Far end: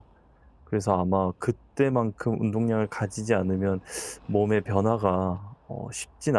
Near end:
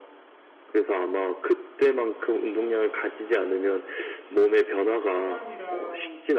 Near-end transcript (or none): 시간이랑